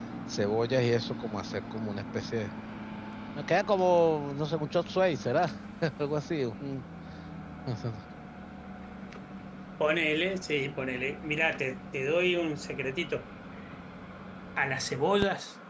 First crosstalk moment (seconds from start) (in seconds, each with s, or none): none